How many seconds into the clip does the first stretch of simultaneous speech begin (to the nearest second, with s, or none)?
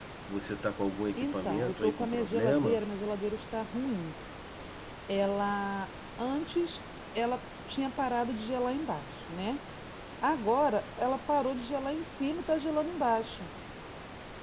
1 s